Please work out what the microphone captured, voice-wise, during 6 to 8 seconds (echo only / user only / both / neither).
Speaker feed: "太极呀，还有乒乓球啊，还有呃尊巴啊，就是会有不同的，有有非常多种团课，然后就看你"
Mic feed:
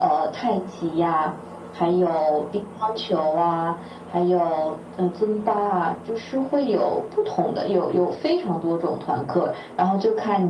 echo only